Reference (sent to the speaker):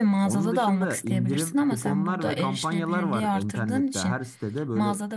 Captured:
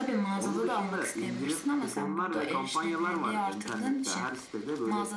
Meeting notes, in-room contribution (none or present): none